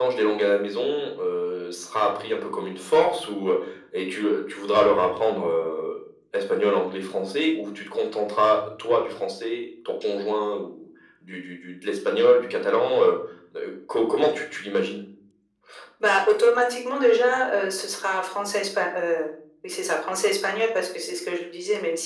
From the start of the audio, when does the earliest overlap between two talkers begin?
none

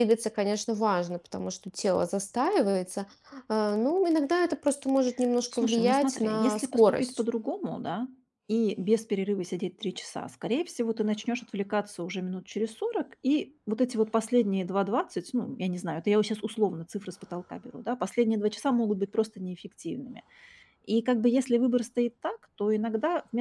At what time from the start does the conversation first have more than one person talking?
5.5 s

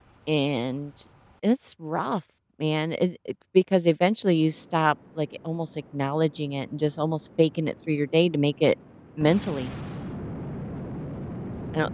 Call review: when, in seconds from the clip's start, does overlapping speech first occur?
none

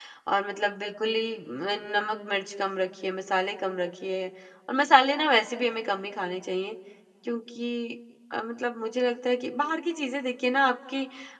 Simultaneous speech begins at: none

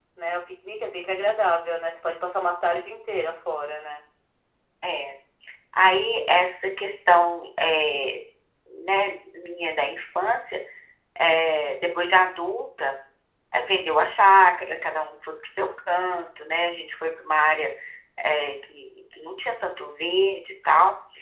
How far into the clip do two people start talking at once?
none

